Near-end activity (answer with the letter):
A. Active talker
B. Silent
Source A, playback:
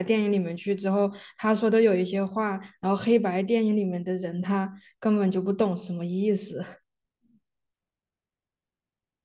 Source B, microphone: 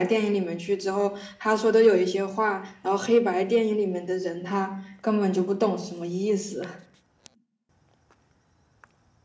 B